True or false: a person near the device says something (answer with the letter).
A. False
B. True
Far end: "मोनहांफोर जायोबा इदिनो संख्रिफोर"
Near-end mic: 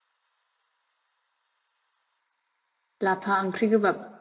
B